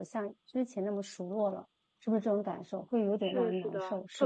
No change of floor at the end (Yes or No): No